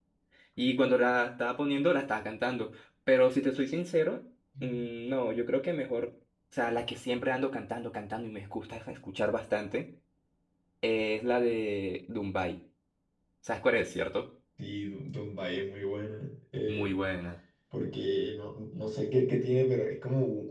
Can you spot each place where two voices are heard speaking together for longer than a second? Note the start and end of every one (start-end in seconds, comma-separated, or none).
none